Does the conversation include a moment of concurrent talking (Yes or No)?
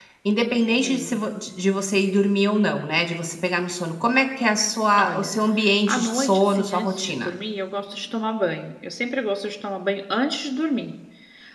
Yes